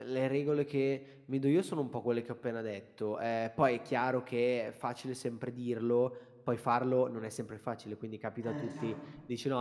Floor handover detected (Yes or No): No